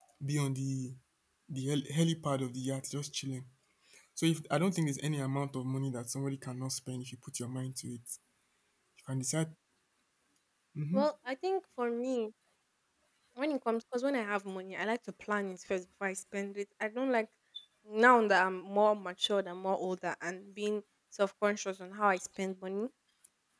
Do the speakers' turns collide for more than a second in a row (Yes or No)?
No